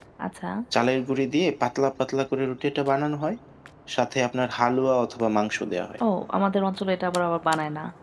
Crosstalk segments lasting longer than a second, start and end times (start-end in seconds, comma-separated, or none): none